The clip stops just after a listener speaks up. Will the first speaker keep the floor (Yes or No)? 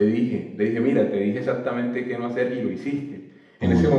Yes